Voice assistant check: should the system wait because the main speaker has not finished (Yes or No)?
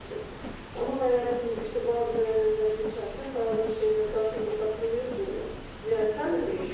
Yes